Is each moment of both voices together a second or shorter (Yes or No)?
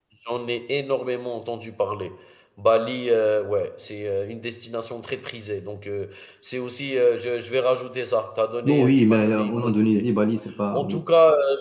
No